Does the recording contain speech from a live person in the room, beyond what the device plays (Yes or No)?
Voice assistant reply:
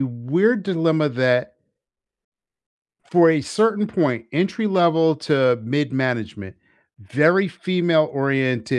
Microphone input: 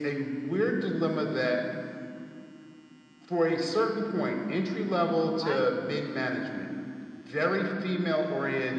Yes